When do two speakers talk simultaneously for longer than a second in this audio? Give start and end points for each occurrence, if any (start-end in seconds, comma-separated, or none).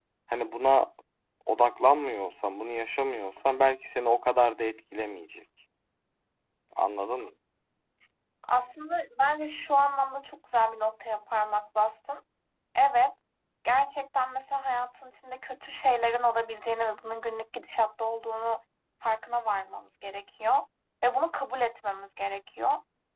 none